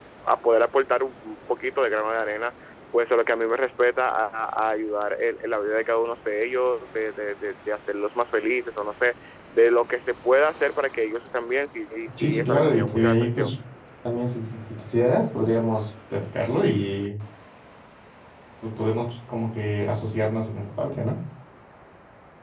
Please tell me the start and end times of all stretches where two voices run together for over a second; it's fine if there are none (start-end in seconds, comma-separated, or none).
12.2-13.5